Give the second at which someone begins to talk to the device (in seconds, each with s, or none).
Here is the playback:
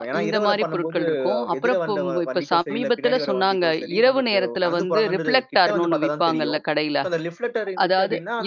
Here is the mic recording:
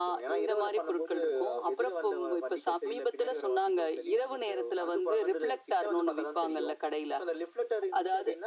none